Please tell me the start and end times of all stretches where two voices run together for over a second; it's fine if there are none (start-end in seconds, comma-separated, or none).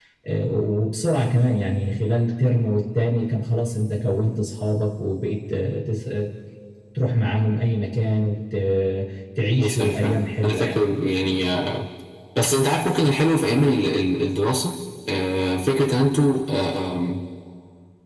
9.6-10.8